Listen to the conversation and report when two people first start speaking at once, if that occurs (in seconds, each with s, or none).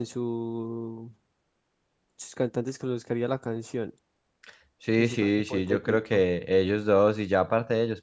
5.0 s